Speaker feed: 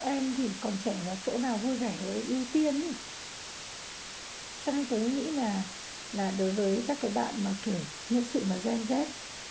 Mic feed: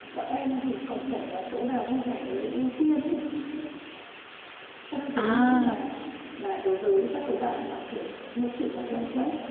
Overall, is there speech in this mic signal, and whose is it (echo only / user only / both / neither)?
both